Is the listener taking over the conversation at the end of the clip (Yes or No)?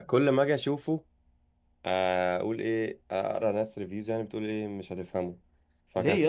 Yes